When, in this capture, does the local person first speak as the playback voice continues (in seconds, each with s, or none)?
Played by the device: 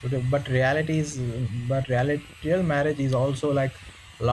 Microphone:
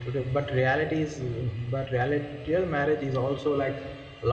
none